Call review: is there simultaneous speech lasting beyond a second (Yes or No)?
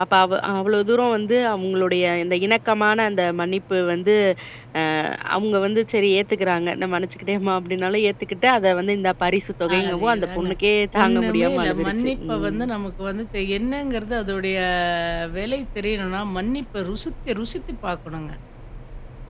Yes